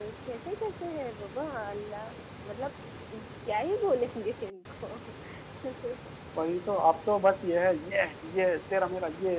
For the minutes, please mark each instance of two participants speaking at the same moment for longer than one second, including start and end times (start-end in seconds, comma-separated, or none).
none